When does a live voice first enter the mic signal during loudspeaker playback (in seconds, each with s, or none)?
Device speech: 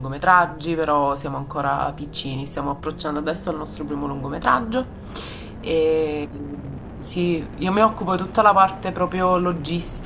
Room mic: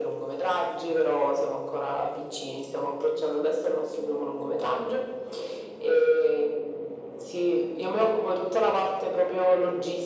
none